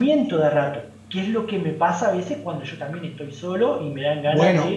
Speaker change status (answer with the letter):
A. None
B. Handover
B